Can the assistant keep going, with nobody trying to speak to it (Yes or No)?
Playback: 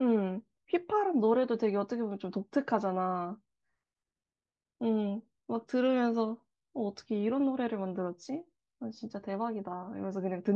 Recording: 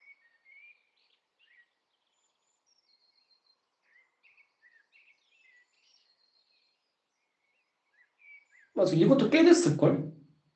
No